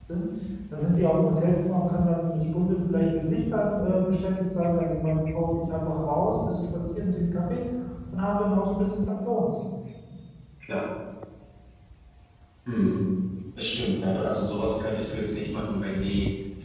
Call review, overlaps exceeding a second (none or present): none